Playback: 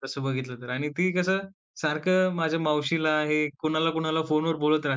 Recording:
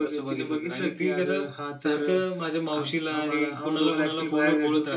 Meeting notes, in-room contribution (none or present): present